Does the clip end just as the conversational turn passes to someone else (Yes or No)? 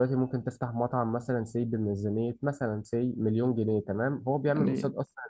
No